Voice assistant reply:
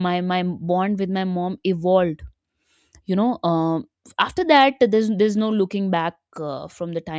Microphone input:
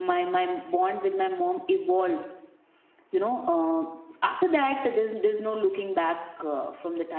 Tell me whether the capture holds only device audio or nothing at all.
Yes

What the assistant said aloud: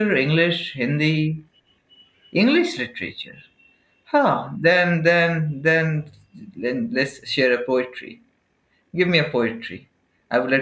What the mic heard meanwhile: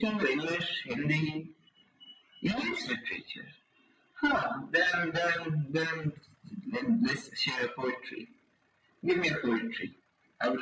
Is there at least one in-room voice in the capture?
No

